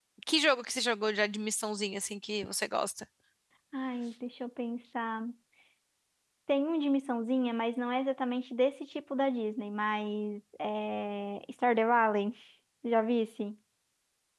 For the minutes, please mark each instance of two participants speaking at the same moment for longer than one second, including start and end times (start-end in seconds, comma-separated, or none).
none